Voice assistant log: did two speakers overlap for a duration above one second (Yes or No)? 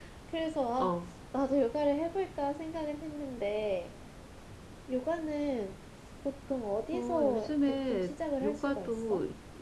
Yes